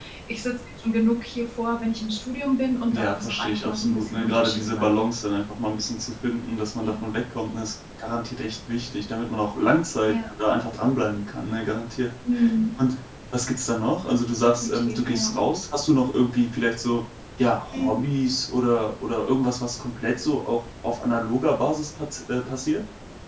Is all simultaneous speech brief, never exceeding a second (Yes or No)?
No